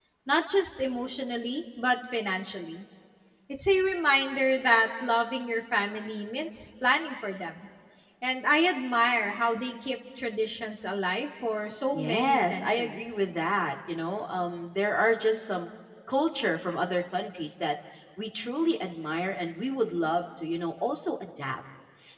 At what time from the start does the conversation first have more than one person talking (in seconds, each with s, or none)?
11.9 s